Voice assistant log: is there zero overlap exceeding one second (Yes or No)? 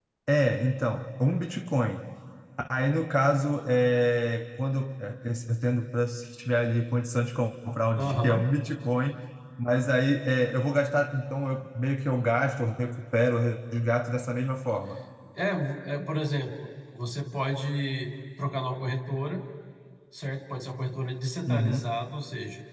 Yes